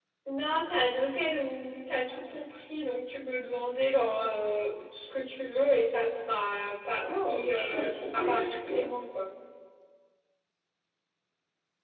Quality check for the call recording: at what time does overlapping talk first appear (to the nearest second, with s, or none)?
7 s